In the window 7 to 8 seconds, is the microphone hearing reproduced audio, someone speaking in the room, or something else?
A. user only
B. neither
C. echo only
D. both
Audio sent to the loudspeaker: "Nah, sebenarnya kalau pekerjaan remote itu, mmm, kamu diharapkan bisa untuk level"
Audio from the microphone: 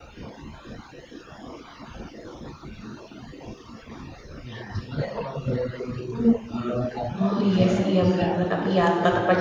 D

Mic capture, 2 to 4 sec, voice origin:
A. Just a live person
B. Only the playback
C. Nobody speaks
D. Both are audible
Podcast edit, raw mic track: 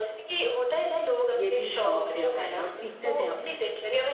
D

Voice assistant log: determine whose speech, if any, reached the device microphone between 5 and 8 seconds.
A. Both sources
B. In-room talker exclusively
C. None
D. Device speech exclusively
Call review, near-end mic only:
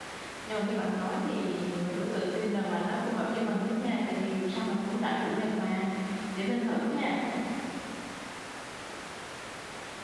B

